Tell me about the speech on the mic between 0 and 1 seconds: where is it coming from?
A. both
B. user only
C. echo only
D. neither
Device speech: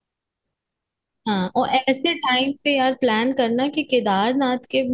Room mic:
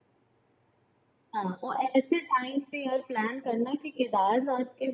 D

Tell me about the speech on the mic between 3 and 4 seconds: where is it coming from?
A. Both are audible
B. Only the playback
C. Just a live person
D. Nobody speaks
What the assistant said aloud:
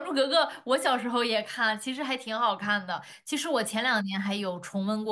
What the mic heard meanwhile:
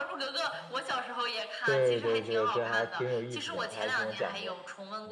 A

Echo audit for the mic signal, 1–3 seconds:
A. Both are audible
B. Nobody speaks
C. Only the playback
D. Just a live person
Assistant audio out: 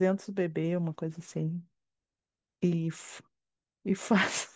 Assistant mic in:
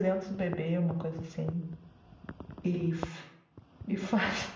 C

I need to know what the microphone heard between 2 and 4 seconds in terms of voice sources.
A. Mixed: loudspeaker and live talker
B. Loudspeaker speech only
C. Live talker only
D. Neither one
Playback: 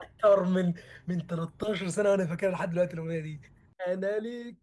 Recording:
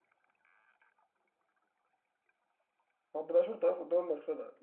C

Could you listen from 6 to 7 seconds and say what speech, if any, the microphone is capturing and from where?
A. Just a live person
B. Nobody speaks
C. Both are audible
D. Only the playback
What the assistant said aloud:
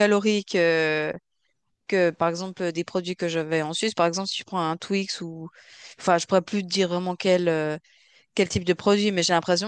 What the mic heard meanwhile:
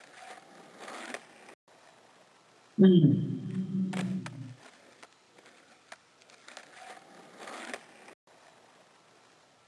B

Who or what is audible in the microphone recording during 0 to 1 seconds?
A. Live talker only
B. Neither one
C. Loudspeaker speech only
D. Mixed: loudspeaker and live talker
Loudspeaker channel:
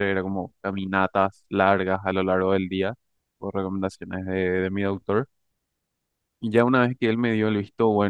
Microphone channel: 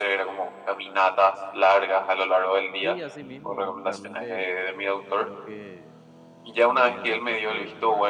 C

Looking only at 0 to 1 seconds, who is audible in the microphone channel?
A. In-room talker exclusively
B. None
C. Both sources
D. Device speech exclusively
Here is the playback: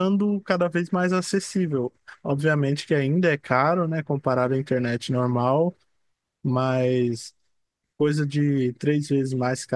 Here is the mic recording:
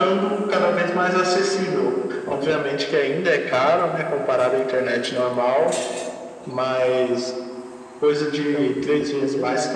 D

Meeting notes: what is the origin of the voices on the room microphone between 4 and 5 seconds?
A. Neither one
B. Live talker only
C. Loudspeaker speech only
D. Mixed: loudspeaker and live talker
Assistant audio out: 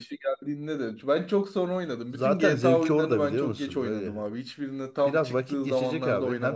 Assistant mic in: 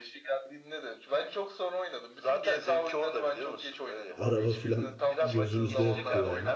D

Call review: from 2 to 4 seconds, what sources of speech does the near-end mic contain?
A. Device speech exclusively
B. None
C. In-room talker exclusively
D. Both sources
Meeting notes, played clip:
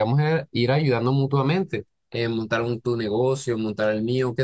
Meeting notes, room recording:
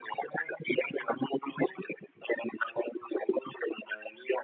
A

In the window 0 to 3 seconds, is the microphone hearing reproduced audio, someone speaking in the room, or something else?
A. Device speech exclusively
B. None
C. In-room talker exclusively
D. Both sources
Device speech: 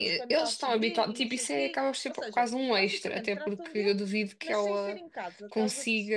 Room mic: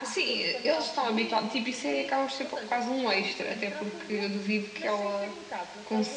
A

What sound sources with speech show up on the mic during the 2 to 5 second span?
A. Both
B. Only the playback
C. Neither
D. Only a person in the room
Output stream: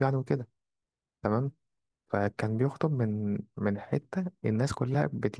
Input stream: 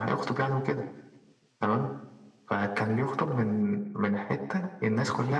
B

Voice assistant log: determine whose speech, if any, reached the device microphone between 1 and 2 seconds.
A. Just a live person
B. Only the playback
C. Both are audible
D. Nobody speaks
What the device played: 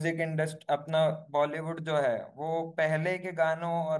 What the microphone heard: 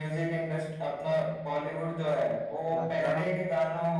B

